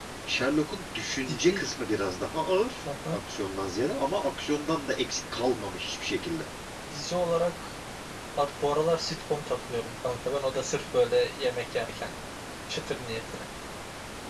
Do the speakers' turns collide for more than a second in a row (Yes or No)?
No